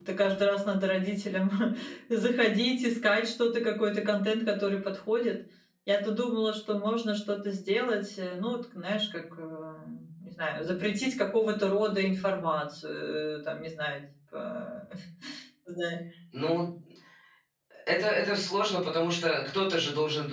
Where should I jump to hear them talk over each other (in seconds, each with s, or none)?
none